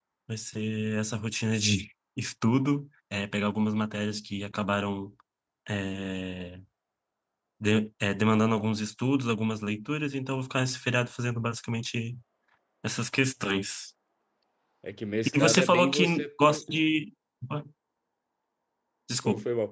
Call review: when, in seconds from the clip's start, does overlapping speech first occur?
15.3 s

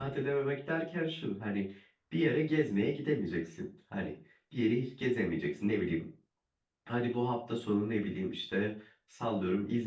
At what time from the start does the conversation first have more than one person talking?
none

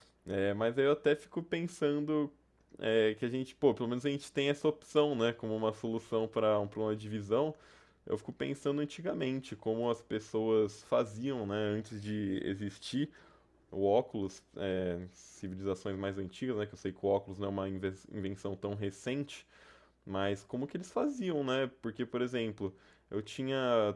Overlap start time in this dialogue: none

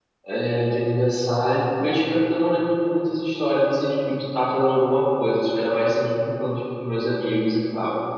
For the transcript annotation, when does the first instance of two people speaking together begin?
none

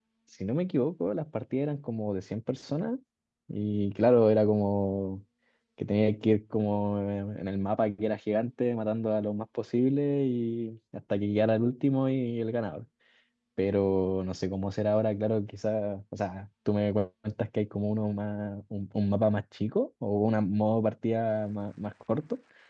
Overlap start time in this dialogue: none

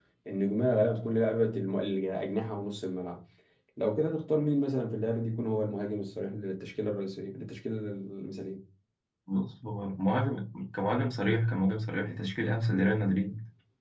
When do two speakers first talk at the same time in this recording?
none

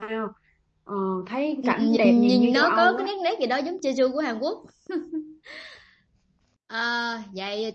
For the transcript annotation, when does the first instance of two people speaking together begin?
1.6 s

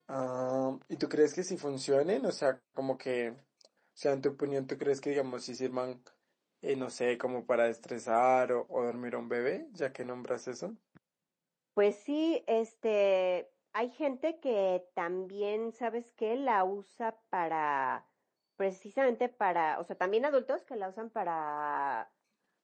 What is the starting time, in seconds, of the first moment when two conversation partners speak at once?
none

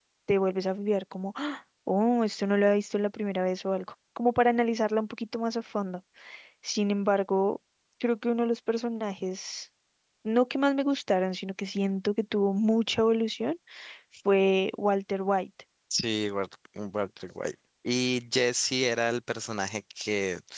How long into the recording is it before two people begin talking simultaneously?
none

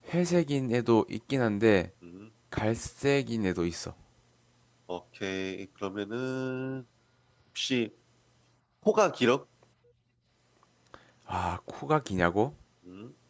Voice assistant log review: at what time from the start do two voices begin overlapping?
none

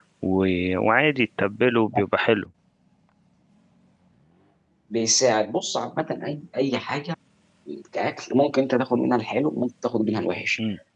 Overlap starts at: none

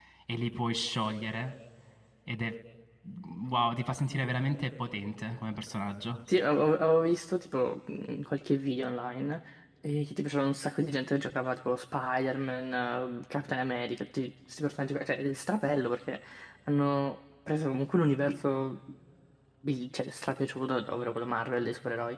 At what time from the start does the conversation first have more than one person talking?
none

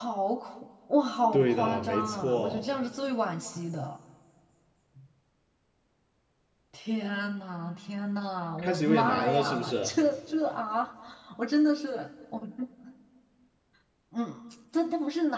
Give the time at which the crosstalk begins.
1.3 s

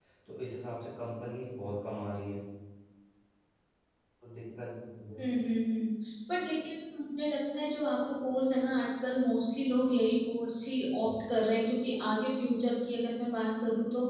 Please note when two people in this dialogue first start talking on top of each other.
none

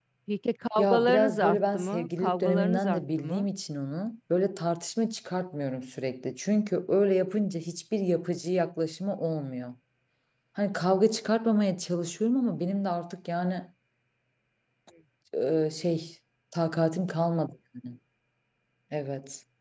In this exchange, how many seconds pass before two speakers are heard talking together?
0.8 s

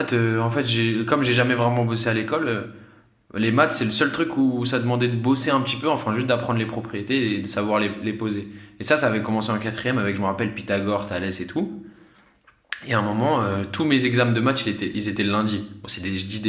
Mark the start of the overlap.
none

